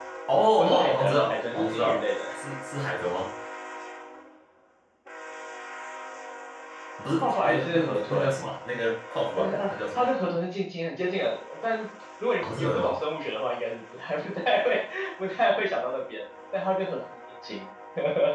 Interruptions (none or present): present